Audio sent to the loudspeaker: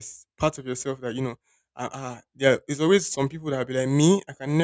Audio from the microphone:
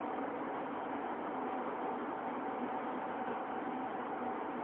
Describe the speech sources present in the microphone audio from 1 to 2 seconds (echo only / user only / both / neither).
neither